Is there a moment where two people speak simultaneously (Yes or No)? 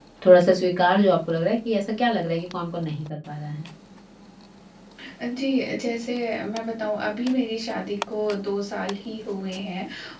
No